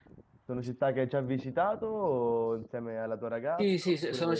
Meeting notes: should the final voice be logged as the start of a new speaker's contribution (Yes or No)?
Yes